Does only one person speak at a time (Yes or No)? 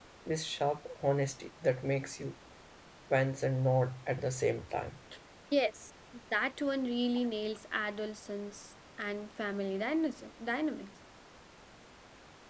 Yes